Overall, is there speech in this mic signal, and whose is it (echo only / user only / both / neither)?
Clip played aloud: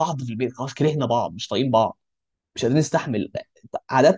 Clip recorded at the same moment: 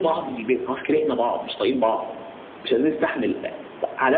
echo only